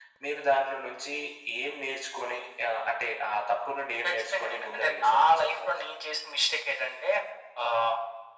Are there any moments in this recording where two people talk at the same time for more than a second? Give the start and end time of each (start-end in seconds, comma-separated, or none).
4.0-5.9